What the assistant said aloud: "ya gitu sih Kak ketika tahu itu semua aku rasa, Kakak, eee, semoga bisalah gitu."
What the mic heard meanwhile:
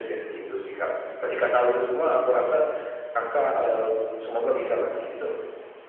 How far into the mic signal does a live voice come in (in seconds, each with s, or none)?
none